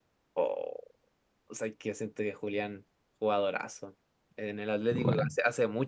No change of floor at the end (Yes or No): Yes